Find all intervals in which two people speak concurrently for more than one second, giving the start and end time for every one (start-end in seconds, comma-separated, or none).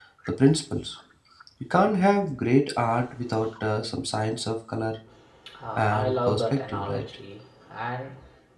5.7-7.0